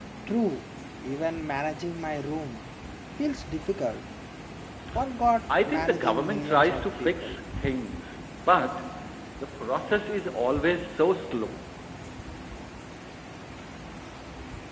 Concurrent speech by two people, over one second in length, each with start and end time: 5.6-7.4

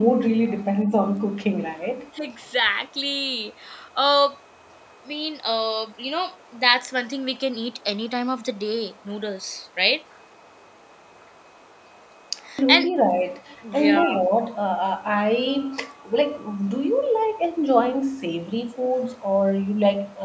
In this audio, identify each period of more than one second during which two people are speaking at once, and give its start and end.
none

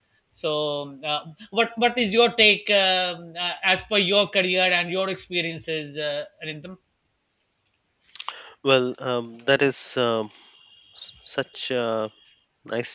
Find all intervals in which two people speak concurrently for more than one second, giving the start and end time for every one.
none

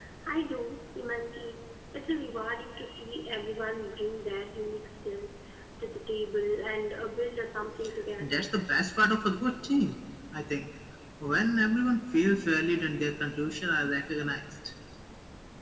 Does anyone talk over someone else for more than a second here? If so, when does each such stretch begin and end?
none

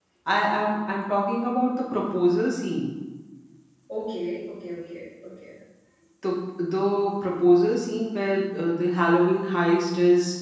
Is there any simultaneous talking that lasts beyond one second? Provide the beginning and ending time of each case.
none

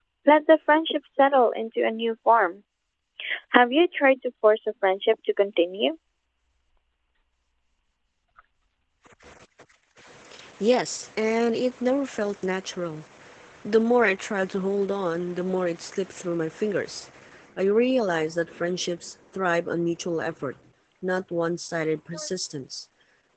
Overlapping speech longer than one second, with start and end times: none

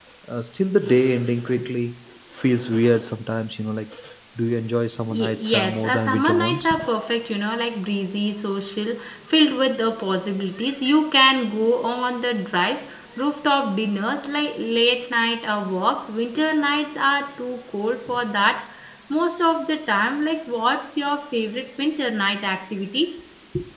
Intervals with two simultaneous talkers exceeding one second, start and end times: 5.1-6.7

